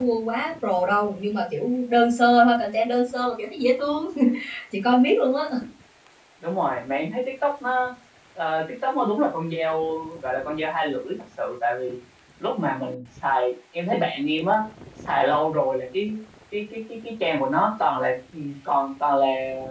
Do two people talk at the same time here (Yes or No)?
No